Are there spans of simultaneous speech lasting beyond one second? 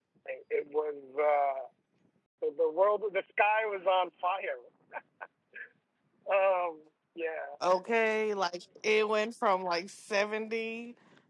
No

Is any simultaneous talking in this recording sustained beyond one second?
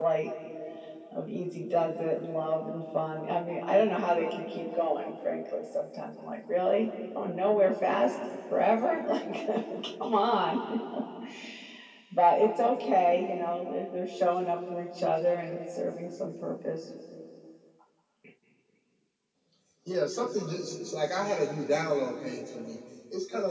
No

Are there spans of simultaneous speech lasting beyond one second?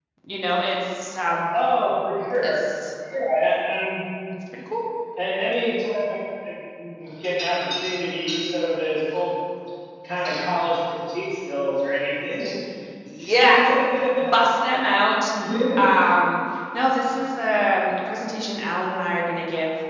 No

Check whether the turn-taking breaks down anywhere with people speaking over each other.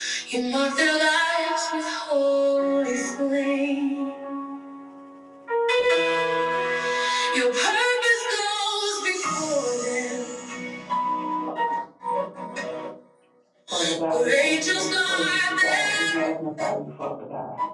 Yes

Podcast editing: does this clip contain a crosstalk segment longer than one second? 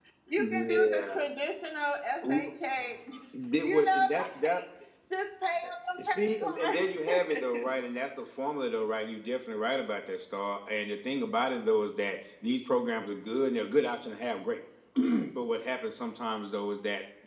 Yes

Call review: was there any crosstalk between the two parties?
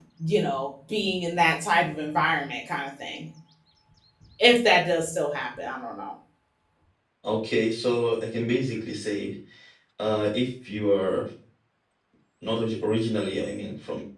No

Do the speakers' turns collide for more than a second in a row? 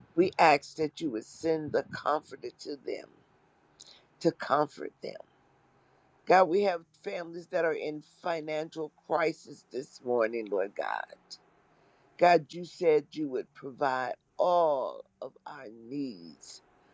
No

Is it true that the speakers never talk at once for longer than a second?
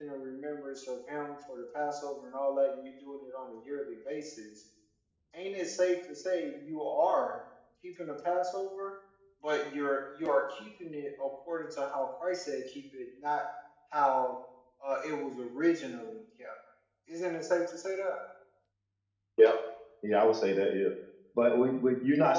Yes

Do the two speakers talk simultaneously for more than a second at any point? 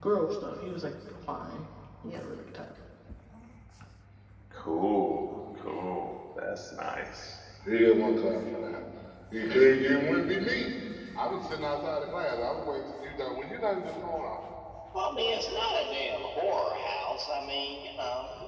No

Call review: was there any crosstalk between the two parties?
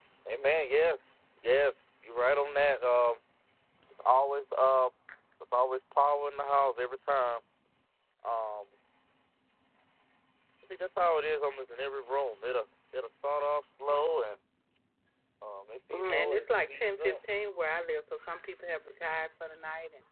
Yes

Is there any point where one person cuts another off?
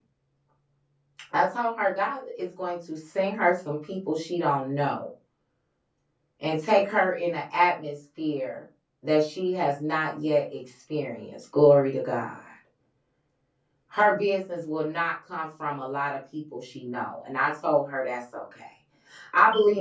No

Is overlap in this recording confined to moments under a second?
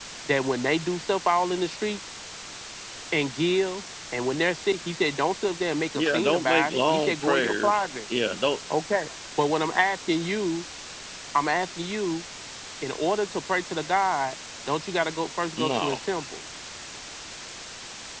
No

